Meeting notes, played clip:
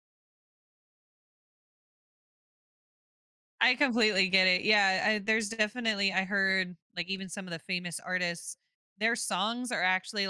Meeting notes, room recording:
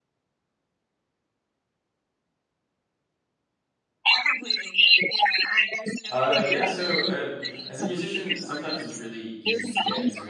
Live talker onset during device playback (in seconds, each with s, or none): 6.1 s